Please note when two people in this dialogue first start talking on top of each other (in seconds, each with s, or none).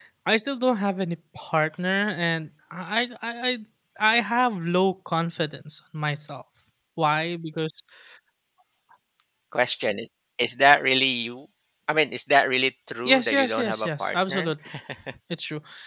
13.1 s